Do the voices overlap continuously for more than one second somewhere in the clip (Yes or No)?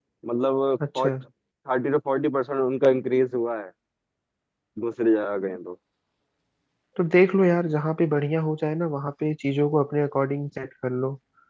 No